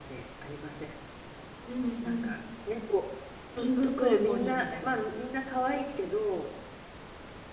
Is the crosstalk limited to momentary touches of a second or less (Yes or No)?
No